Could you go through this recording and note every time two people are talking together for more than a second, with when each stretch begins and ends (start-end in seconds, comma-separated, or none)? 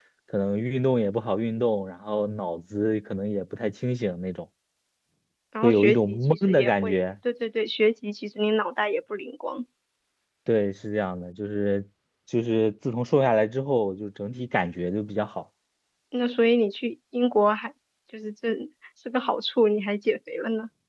5.6-7.0